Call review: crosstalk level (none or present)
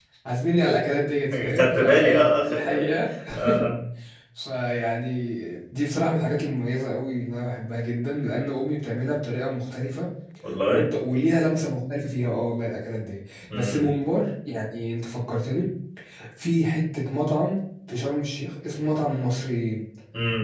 present